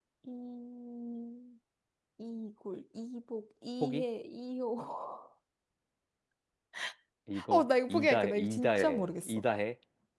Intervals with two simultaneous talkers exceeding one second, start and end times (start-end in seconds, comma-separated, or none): 7.5-9.4